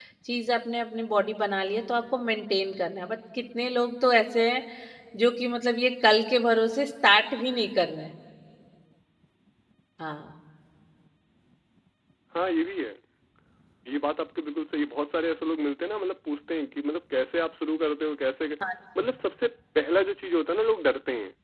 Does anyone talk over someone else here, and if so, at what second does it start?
none

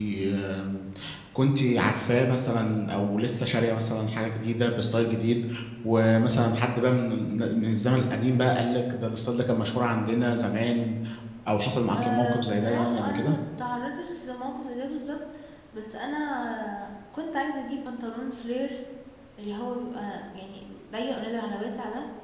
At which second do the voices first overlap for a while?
12.0 s

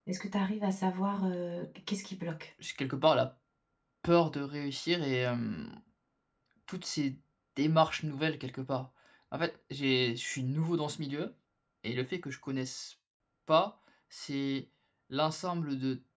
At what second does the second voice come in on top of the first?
none

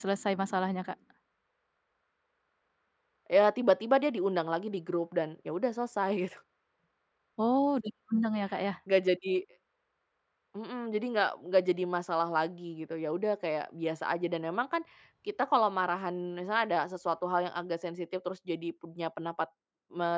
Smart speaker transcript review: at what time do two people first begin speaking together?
none

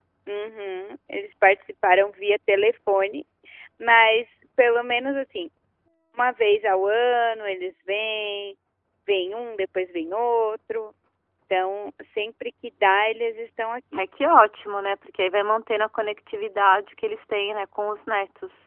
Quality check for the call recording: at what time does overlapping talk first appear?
none

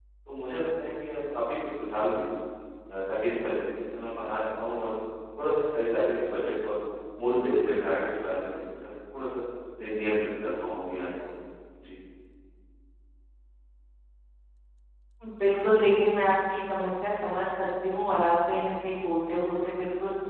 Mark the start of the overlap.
none

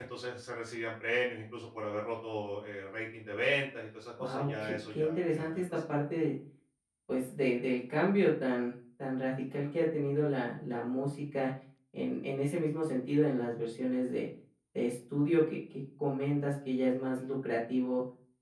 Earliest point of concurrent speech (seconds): 4.2 s

